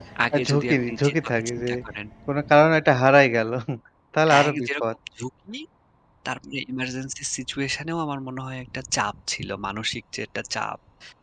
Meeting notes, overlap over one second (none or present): present